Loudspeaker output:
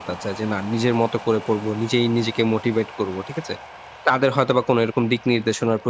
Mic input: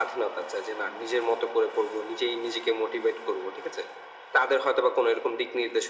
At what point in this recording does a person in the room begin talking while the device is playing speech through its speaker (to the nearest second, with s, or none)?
none